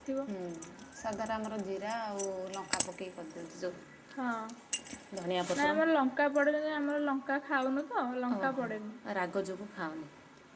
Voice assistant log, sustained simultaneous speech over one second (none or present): none